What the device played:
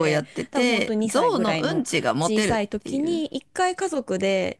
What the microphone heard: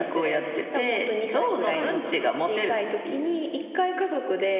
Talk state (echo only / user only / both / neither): both